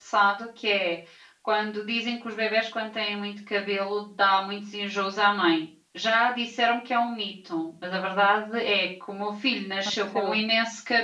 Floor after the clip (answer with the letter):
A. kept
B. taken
A